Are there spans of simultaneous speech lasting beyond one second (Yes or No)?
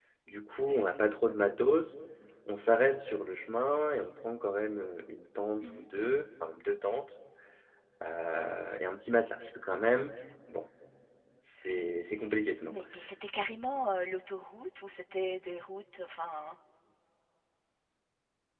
No